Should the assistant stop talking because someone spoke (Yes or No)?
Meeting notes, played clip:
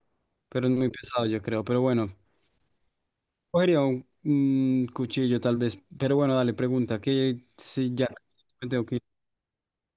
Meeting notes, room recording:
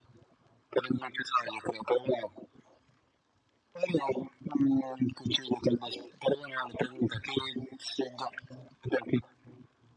No